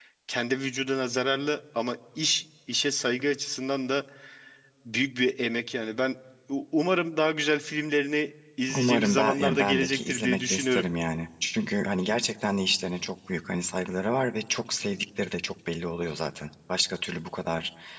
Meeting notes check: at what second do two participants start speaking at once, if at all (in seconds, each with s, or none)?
8.7 s